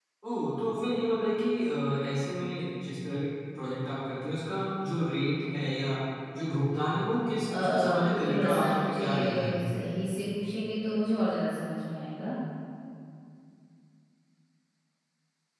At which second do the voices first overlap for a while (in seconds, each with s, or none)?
7.5 s